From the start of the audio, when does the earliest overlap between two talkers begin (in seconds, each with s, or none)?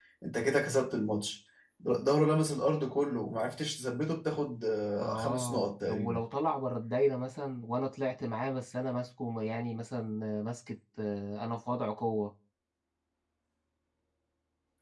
5.0 s